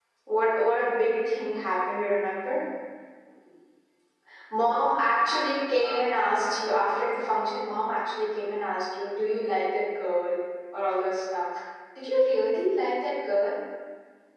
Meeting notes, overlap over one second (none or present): present